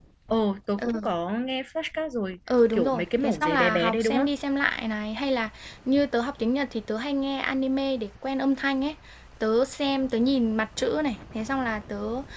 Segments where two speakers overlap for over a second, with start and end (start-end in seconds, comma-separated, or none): 2.7-4.3